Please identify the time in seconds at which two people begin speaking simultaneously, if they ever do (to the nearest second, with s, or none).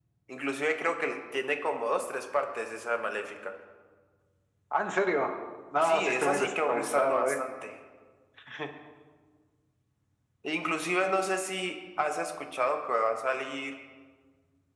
6 s